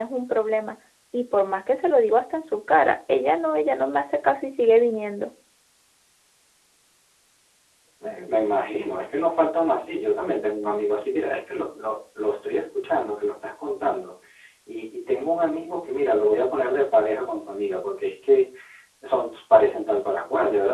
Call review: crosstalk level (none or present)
none